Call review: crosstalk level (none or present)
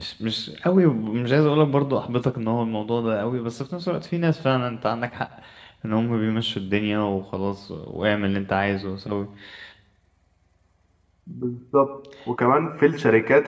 none